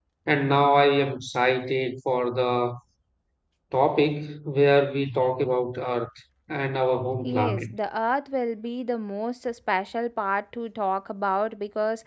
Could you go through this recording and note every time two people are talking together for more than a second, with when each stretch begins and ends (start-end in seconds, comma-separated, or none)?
none